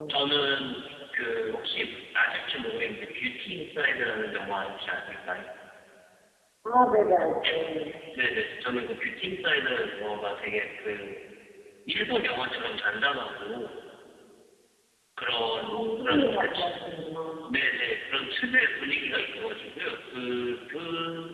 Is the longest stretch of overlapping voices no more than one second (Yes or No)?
No